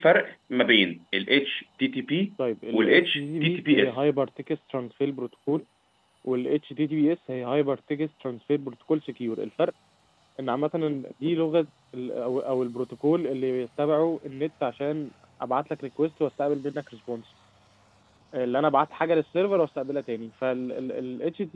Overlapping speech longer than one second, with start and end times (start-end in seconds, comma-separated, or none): 2.7-4.0